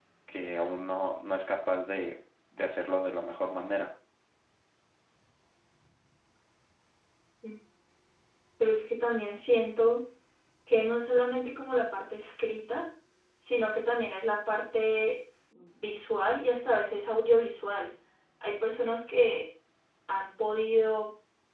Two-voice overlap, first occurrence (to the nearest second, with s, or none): none